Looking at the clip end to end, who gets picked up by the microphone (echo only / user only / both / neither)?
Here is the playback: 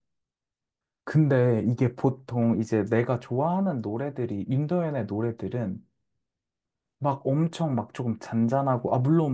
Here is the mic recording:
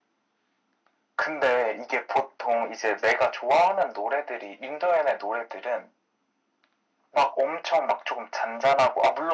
echo only